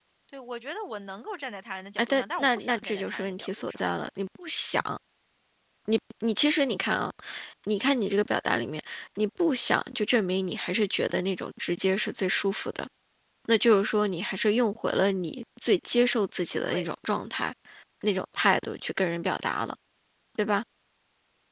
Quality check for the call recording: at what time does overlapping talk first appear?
2 s

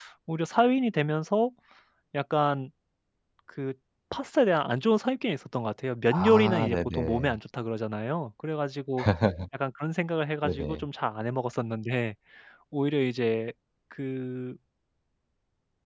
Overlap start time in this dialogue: 6 s

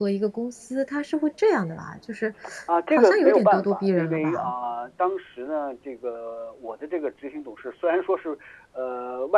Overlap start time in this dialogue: 3 s

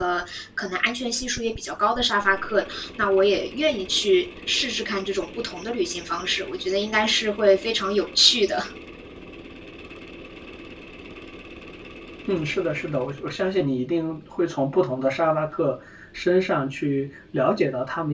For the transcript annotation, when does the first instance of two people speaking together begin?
none

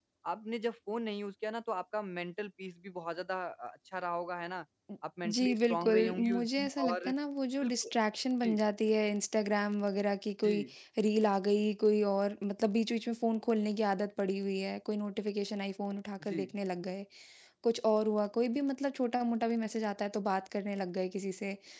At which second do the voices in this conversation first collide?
5 s

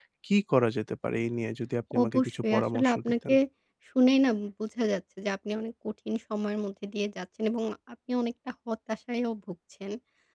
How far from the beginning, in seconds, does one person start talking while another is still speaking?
2 s

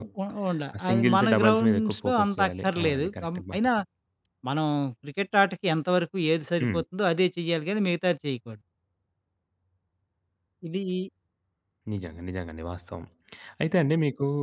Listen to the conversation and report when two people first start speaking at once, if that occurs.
1 s

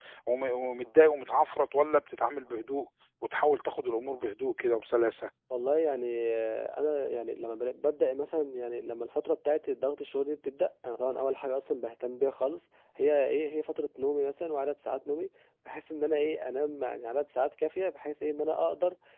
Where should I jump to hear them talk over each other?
none

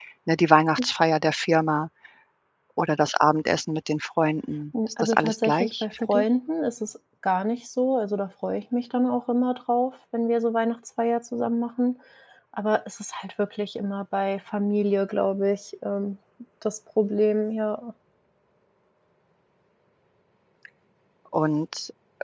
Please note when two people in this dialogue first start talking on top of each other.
5 s

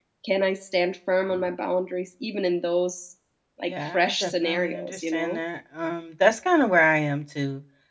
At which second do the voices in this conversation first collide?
4 s

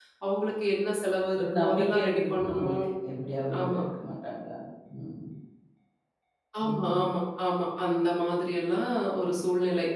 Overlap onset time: 1 s

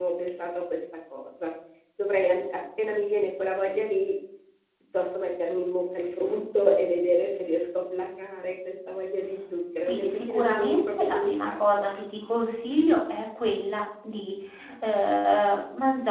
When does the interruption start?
10 s

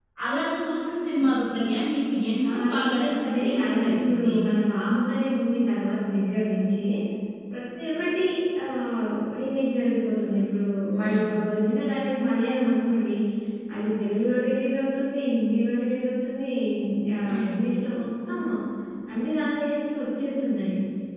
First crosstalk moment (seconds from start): 2 s

